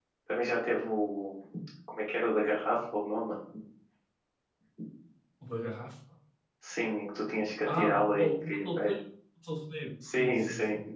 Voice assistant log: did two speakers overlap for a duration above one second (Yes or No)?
Yes